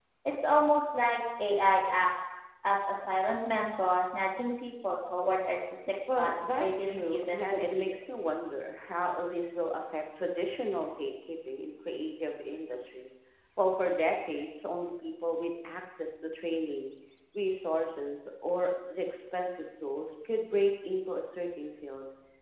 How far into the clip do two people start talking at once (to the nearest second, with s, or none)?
6 s